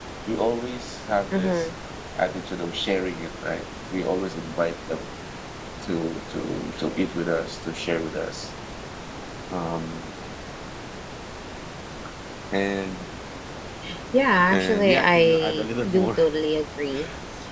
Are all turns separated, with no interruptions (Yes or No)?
No